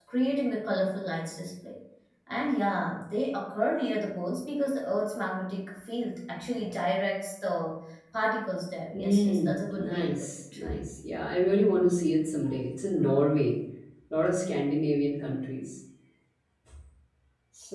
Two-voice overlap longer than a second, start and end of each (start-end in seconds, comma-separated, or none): 8.9-10.3